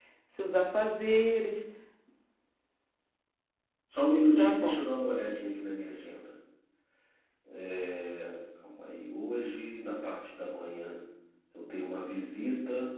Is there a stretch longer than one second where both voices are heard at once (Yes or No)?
No